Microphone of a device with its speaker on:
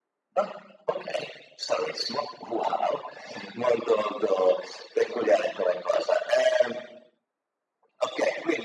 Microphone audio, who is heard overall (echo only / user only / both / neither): echo only